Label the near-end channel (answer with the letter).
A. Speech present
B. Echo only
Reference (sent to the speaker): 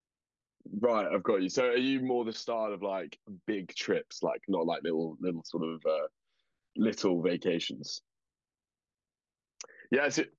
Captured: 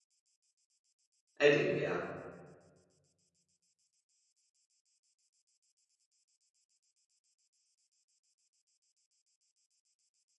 A